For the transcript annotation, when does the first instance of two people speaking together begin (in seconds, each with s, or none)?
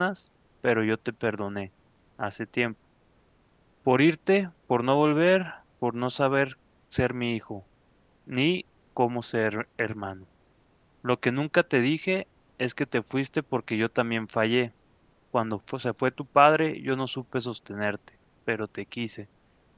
none